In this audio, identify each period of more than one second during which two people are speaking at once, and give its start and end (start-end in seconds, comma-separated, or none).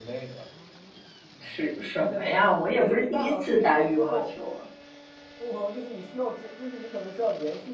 2.8-4.3